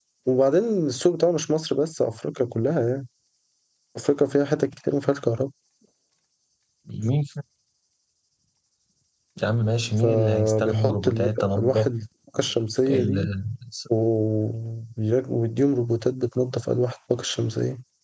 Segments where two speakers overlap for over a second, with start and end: 10.0-11.9

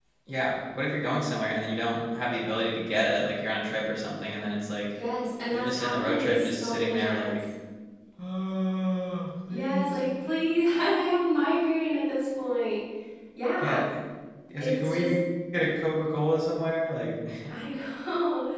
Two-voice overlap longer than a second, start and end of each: 5.5-7.4

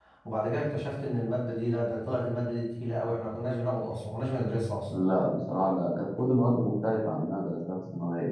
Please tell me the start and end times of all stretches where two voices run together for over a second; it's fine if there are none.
none

